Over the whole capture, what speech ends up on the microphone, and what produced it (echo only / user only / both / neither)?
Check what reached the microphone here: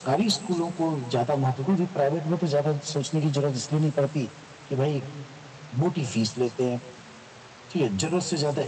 echo only